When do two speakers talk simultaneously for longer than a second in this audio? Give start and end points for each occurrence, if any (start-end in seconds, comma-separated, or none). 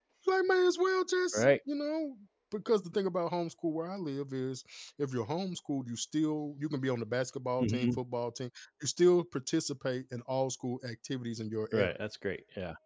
none